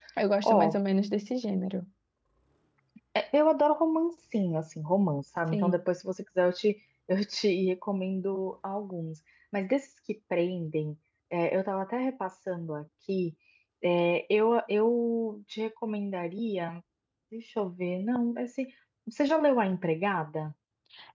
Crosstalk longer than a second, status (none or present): none